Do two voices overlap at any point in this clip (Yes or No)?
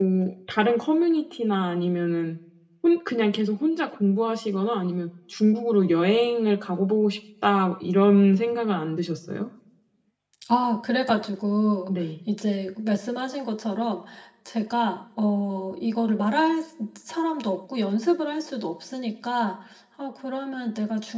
No